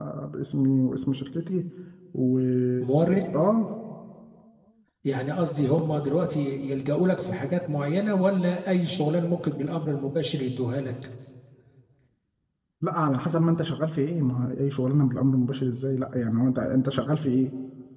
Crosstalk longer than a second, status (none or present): none